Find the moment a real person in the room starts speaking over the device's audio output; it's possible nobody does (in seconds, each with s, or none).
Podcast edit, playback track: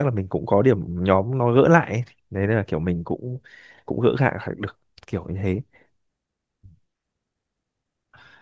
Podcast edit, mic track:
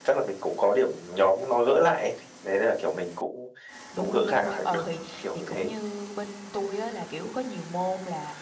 3.9 s